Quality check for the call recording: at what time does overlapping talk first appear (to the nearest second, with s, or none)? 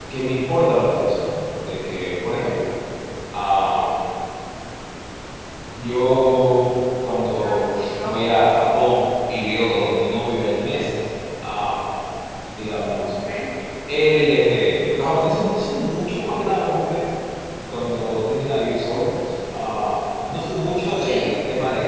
7 s